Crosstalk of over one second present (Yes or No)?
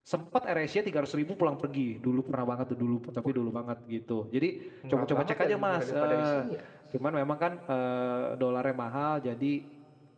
Yes